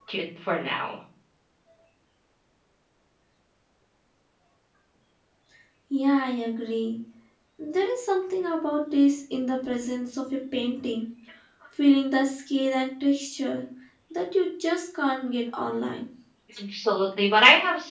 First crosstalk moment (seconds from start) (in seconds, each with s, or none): none